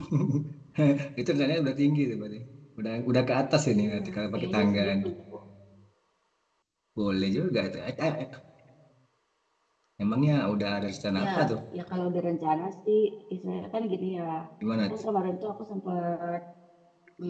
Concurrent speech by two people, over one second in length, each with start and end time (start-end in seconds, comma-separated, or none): 3.8-5.0